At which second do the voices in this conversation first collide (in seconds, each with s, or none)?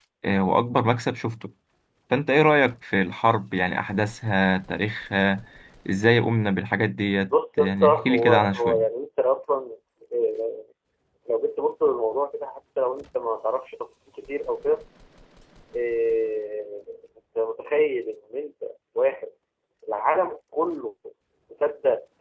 7.6 s